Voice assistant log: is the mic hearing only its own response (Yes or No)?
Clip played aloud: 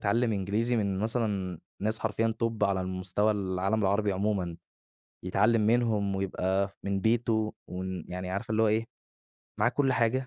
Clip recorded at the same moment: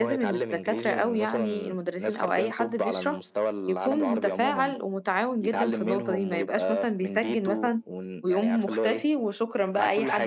No